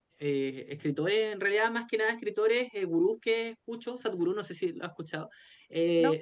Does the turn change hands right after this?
No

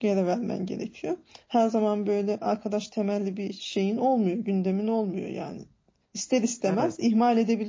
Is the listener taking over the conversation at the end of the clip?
No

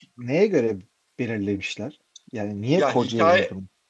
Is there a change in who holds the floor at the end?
Yes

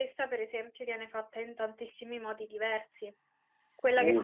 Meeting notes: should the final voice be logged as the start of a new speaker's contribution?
No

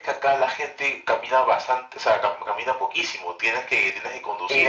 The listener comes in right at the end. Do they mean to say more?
Yes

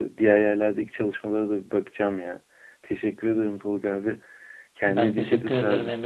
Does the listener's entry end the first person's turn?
Yes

